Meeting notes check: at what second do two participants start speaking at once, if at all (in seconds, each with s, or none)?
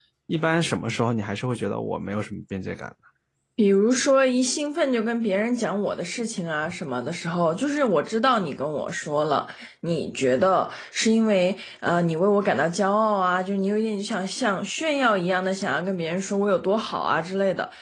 none